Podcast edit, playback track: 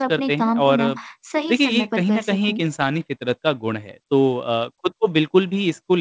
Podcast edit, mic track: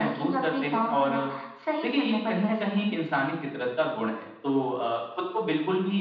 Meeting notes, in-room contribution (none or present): none